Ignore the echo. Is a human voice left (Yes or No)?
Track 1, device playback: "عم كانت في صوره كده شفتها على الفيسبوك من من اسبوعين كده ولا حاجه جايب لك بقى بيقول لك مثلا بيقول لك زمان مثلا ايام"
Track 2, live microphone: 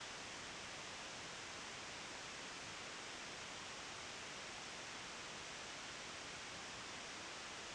No